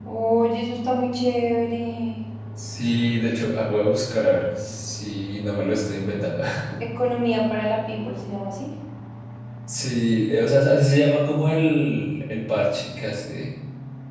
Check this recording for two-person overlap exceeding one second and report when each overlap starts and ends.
none

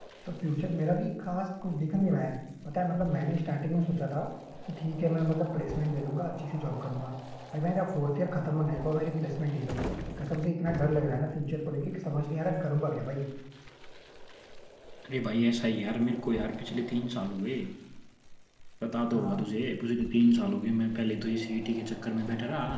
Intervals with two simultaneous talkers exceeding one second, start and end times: none

